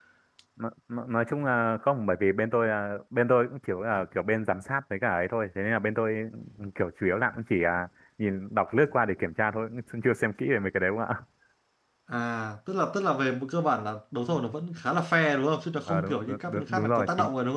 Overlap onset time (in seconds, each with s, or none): 15.9 s